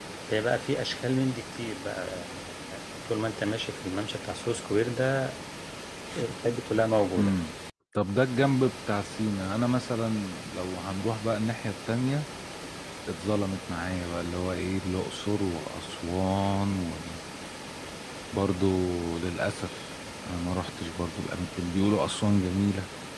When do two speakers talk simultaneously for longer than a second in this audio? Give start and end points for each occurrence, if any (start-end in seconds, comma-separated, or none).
none